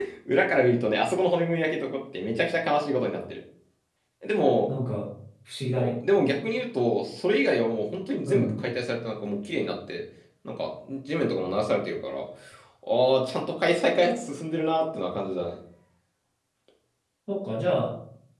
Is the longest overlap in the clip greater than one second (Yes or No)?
No